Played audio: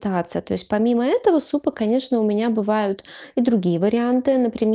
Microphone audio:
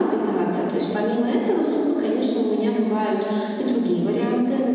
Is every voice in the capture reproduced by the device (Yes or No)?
Yes